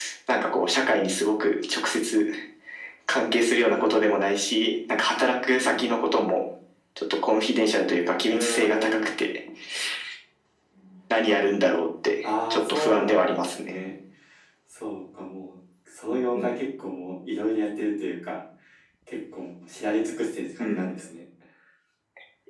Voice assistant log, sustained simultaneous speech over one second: present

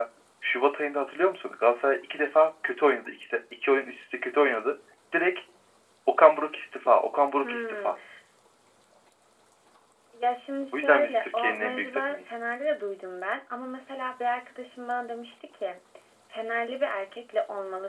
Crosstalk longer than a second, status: present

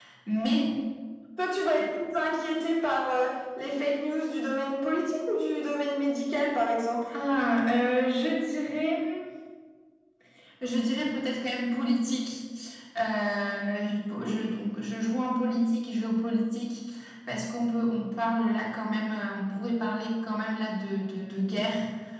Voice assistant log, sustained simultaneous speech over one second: none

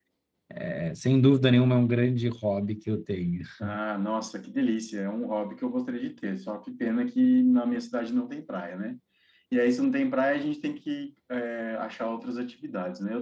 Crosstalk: none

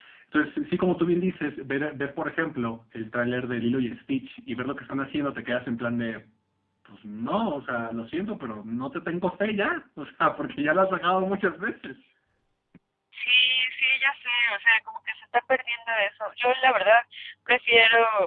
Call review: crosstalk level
none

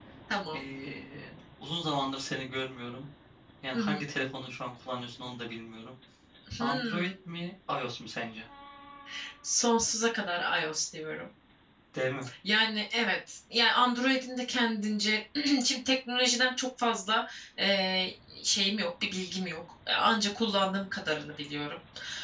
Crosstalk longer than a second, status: none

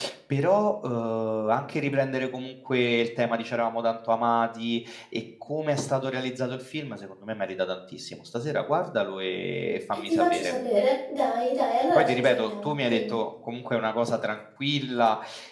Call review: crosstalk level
present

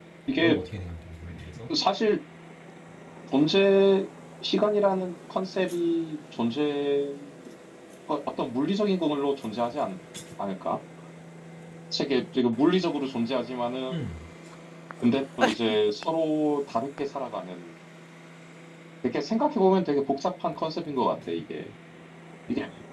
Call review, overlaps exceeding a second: none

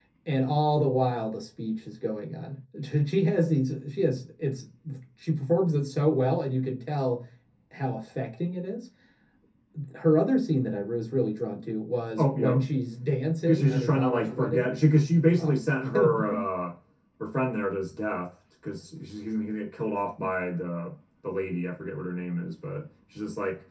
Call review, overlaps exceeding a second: present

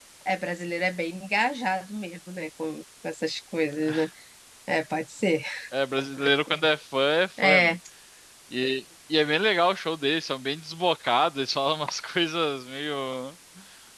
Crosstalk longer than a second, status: none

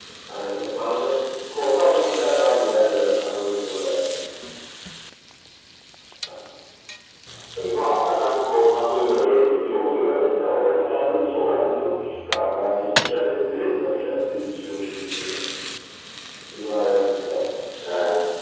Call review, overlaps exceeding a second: present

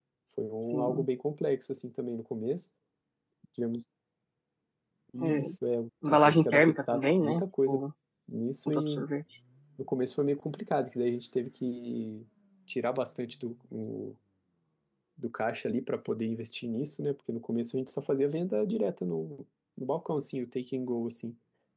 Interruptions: present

